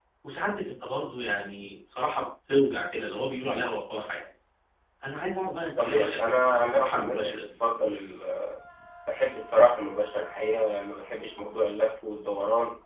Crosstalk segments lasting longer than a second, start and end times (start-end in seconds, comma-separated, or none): 5.8-7.5